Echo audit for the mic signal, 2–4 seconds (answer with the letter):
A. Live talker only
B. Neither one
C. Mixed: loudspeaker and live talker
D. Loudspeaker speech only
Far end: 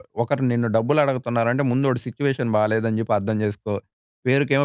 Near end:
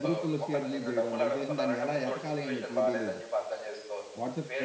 C